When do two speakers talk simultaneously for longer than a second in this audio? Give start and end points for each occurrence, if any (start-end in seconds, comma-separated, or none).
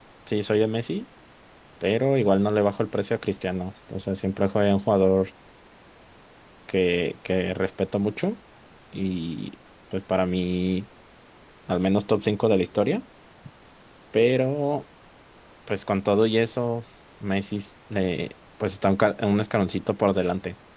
none